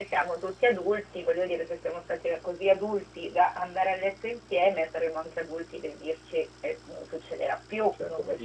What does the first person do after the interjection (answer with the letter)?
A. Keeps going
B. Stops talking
B